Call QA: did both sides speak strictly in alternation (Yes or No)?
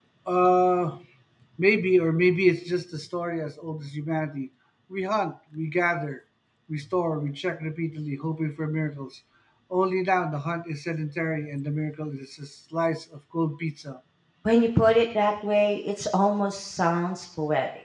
Yes